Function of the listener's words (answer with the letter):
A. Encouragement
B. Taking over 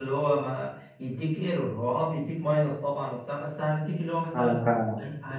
A